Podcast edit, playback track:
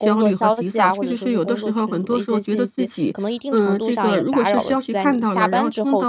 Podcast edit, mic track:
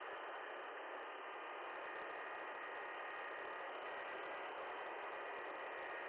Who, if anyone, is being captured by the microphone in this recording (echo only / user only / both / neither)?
neither